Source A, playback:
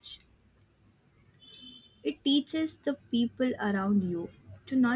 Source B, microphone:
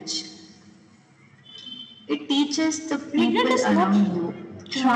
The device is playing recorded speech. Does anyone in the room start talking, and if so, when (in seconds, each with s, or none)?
3.1 s